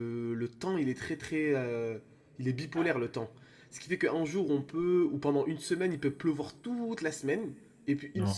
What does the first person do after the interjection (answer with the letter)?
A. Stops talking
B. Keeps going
B